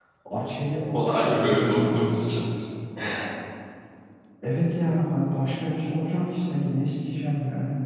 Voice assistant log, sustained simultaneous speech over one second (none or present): present